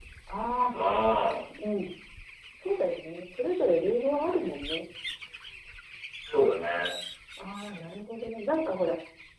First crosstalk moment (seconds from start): none

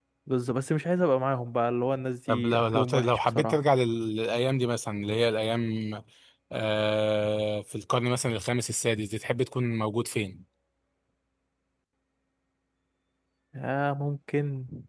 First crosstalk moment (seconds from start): 2 s

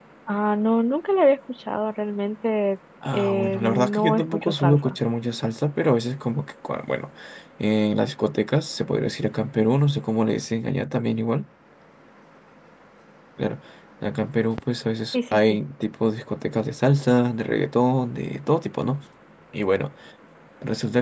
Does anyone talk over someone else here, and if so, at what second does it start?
3 s

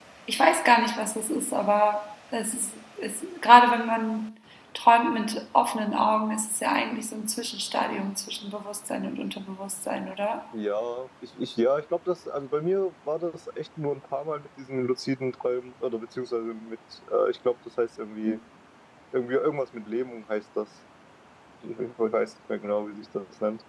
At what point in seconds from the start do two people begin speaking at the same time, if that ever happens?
none

